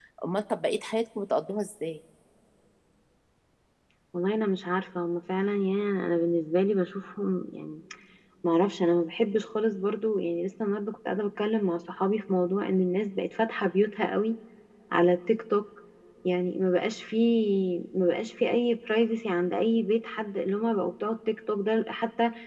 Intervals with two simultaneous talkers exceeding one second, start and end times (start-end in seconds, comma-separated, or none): none